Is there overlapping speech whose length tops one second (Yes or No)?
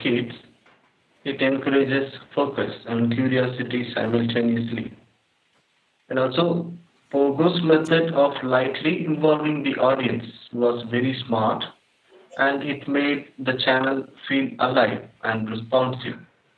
No